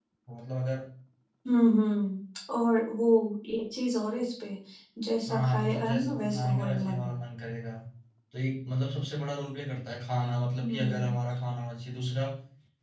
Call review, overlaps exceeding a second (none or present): present